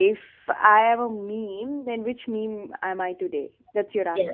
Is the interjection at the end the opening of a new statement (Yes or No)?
Yes